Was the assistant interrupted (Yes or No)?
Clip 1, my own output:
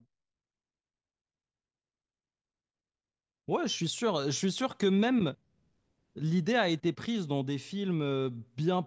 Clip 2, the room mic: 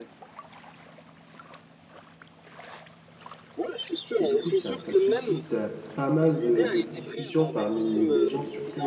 Yes